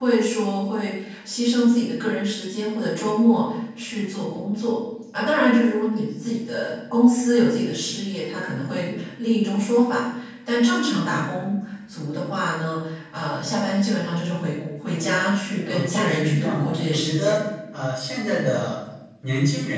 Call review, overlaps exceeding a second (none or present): present